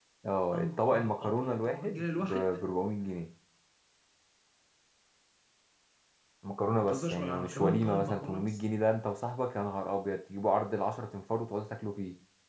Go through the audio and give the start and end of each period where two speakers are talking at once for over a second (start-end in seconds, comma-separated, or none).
0.5-2.6, 6.8-8.6